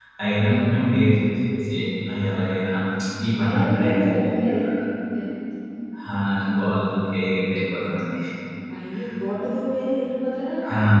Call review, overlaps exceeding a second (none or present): present